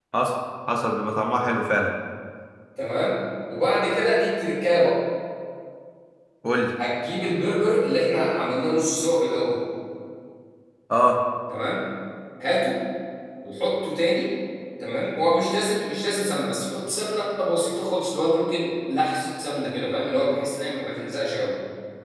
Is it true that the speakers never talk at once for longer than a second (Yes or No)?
Yes